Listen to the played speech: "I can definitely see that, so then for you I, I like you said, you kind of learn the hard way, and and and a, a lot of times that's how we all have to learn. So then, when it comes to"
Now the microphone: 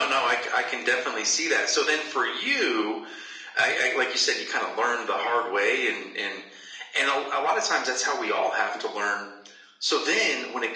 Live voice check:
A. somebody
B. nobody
B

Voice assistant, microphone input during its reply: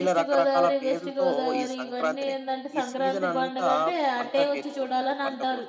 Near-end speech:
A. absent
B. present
B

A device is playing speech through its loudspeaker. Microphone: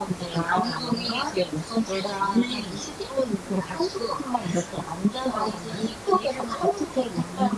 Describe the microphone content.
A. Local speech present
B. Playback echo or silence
B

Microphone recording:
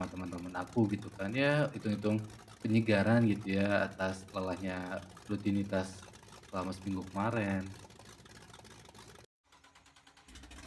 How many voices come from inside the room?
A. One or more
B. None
A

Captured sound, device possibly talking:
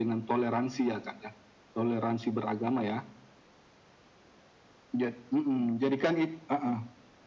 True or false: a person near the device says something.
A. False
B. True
A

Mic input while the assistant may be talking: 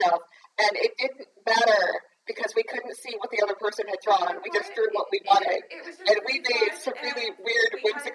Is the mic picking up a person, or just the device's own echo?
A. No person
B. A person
B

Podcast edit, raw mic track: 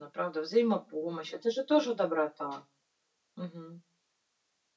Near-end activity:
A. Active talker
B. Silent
B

